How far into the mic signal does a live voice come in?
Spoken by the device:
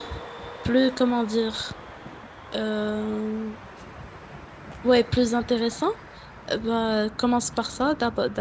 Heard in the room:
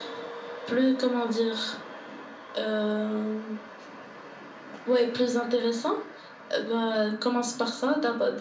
none

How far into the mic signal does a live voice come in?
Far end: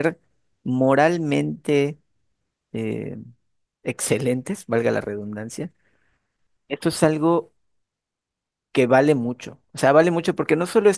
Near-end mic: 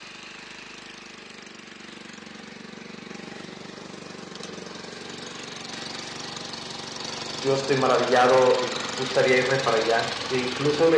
7.4 s

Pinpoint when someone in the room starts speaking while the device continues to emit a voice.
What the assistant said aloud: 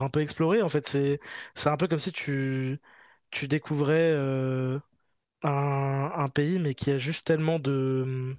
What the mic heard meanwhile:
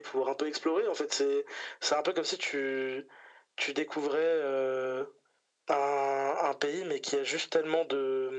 none

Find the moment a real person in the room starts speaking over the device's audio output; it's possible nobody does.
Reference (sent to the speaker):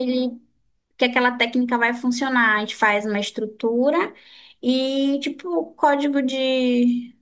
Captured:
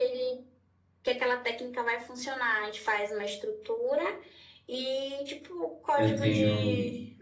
5.9 s

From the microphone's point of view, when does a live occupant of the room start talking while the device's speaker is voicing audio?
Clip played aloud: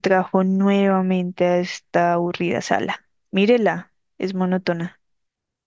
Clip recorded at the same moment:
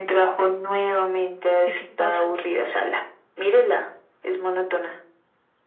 1.6 s

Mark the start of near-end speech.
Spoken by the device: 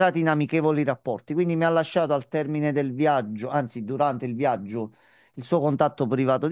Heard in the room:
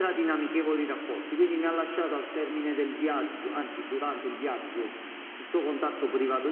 none

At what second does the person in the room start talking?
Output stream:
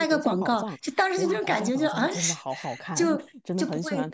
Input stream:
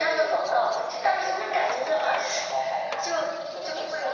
none

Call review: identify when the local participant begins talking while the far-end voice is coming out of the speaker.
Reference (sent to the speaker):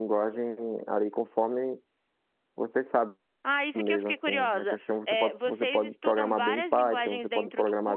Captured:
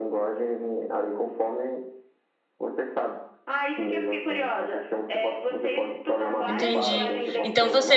6.4 s

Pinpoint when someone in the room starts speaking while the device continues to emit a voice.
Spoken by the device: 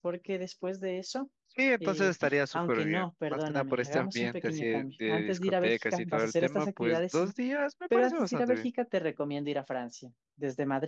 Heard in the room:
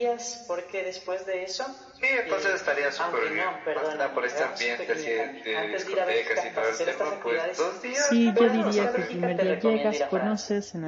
7.9 s

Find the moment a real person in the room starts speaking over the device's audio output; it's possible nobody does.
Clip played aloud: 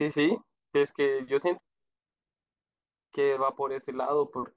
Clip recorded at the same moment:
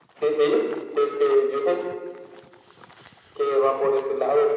none

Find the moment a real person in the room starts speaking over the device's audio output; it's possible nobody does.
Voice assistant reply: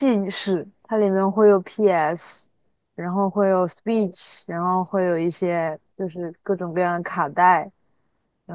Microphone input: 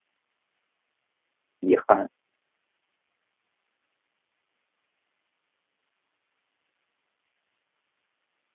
1.6 s

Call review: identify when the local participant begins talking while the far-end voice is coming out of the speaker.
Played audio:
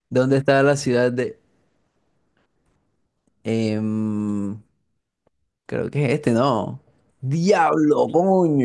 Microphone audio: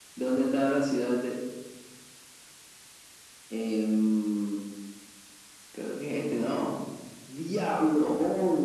none

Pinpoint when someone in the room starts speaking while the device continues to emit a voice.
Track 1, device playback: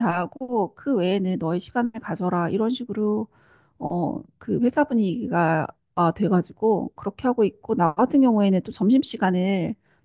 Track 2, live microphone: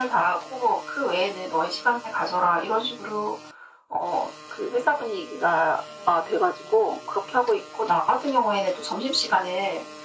none

